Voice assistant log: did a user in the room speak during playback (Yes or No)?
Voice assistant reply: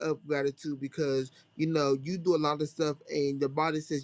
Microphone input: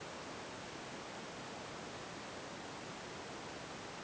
No